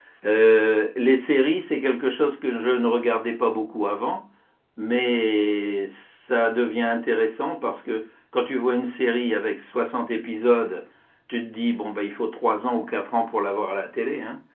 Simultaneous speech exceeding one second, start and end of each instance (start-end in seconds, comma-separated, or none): none